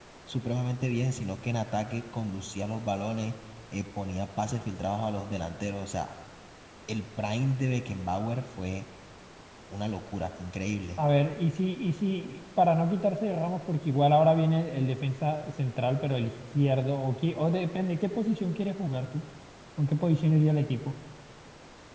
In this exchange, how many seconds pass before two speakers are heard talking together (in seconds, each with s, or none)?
none